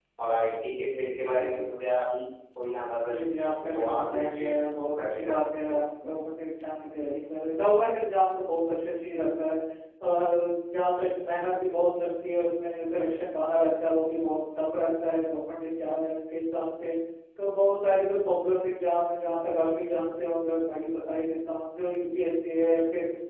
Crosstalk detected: Yes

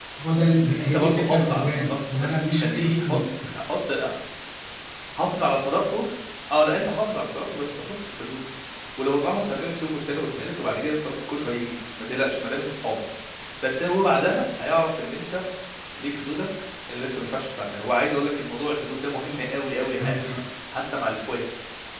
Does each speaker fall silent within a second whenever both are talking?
No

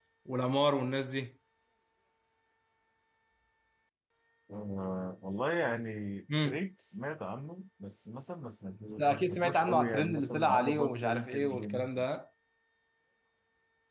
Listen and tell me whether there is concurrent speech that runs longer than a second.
Yes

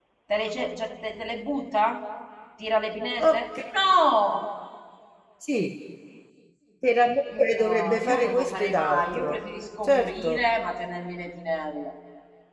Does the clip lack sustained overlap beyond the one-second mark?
No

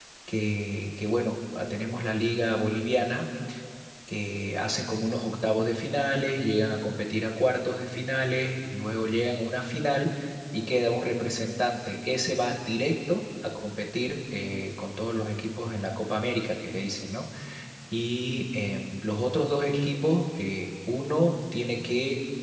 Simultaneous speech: No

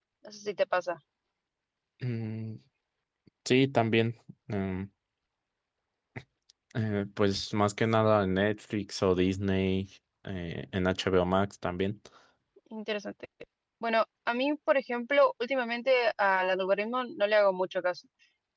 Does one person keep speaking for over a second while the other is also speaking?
No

